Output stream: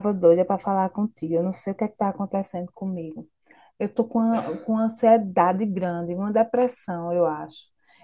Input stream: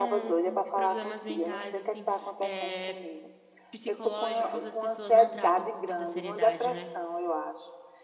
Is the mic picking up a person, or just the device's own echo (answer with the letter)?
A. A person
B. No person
A